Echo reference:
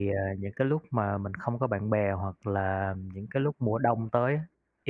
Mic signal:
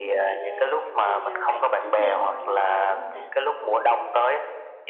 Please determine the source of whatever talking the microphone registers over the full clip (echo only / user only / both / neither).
both